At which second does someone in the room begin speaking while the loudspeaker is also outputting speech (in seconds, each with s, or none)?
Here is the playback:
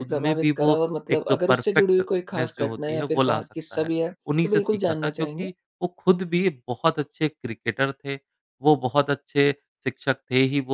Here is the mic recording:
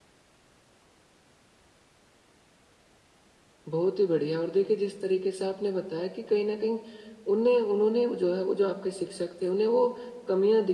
3.7 s